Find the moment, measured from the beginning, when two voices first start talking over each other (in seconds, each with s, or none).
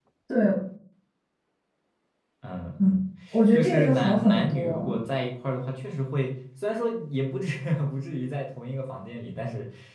3.5 s